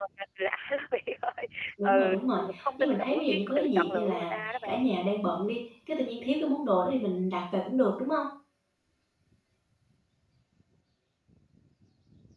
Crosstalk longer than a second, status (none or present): present